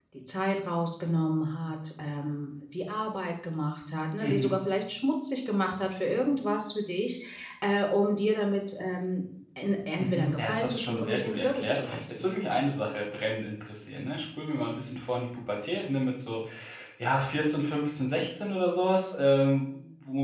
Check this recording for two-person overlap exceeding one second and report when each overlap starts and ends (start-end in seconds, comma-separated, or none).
10.0-12.2